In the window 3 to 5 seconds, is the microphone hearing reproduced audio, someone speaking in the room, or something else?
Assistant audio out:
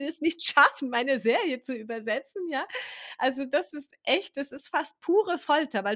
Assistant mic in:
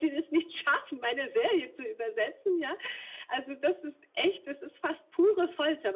echo only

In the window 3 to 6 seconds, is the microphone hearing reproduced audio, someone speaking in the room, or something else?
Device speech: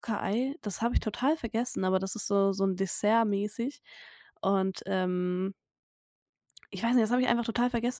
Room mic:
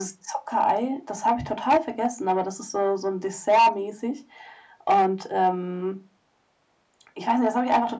echo only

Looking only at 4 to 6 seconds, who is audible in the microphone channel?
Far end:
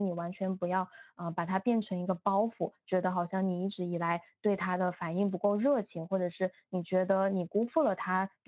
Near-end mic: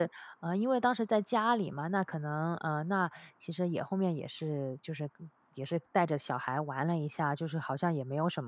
user only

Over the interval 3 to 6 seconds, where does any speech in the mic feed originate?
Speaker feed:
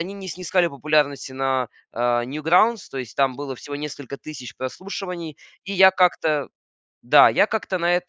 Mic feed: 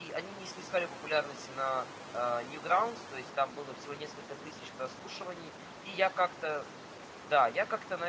echo only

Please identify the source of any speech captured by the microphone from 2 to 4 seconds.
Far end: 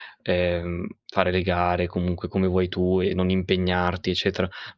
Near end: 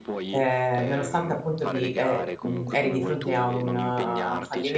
both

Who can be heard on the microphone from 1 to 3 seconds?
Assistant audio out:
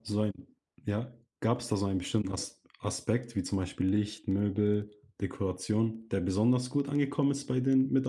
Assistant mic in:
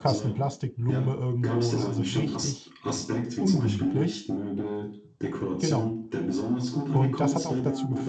both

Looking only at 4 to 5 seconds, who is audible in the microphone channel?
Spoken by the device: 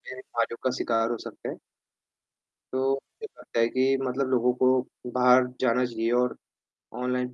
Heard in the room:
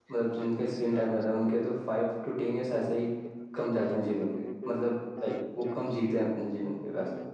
both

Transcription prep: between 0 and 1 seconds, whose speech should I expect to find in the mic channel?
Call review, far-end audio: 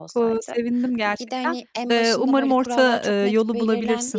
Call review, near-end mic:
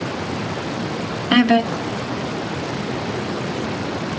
neither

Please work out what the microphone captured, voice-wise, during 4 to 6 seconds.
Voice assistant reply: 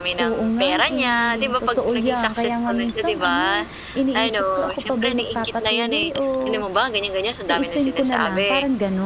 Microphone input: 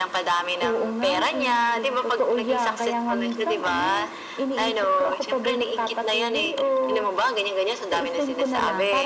echo only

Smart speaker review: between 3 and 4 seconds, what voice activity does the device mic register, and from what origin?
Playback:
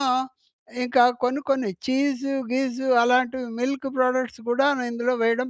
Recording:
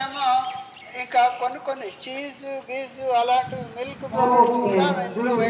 echo only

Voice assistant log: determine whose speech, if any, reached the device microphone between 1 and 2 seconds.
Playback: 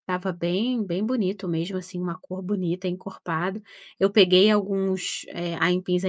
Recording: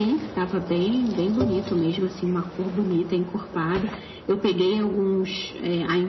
echo only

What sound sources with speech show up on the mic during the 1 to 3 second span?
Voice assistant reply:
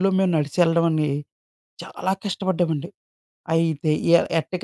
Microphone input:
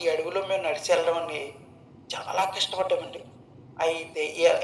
echo only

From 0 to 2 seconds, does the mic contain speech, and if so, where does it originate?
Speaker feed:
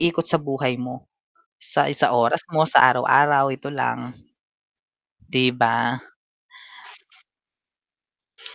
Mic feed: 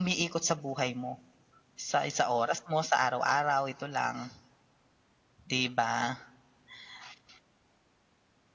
echo only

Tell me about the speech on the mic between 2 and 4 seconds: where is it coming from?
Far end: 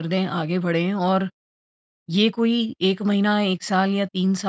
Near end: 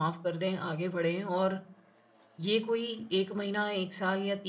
echo only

